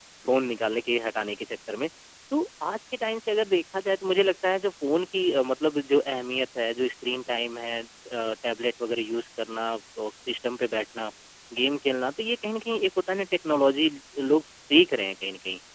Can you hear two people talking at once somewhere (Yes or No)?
No